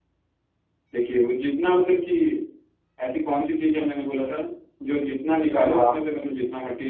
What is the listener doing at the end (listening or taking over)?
listening